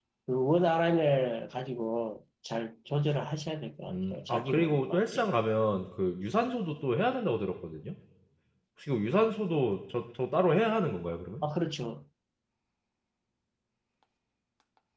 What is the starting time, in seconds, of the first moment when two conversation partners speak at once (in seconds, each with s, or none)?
3.9 s